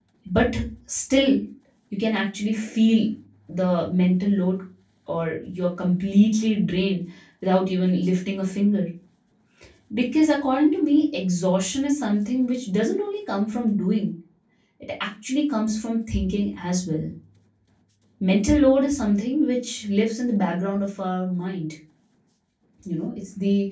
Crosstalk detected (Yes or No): No